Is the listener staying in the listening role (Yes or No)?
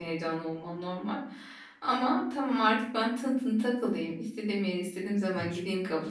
Yes